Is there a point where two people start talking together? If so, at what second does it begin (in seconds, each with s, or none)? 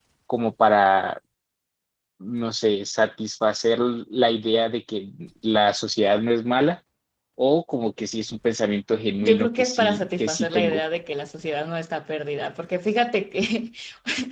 9.2 s